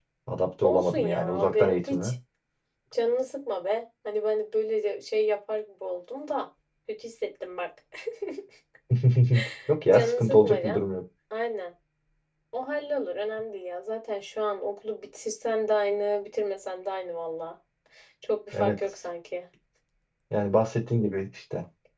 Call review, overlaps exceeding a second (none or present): present